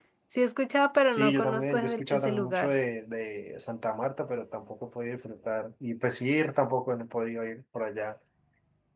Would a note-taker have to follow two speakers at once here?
Yes, from 1.1 s

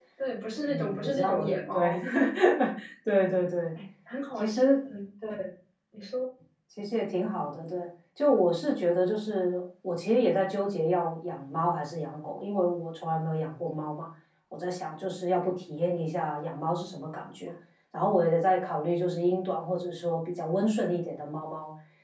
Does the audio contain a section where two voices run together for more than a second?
Yes, from 0.7 s

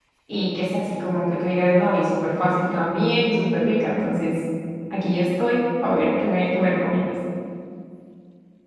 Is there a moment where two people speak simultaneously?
No

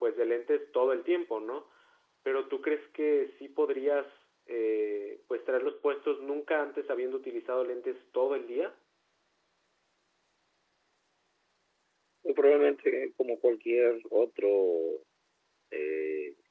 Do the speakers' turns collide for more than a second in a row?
No

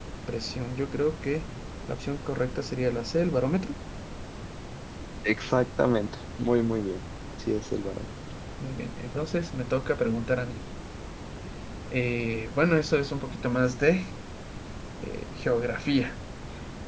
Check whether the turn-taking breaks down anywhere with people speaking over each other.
No

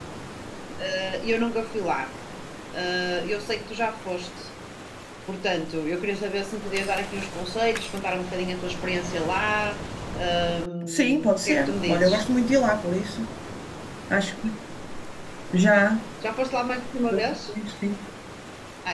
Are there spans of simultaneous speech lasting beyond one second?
Yes, from 10.9 s

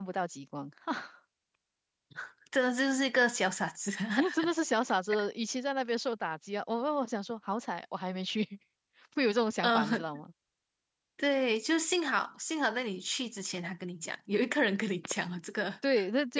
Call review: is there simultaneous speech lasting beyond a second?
No

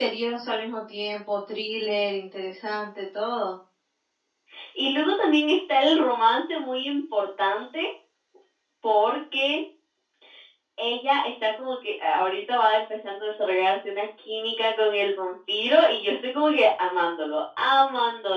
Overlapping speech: No

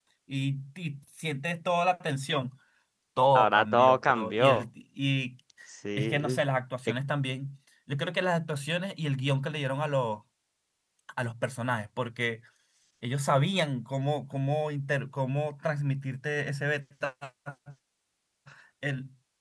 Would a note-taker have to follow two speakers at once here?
Yes, from 3.4 s

